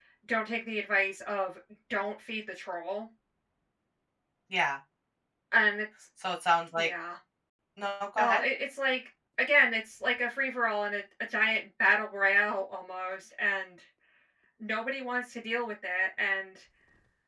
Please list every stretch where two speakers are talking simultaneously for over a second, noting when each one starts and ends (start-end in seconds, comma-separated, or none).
none